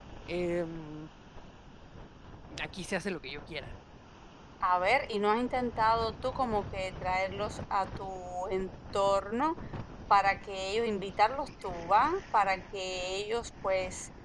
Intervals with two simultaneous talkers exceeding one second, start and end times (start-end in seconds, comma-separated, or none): none